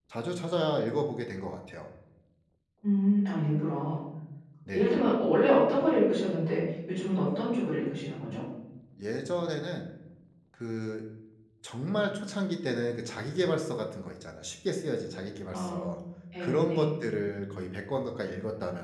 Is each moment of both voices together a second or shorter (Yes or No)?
Yes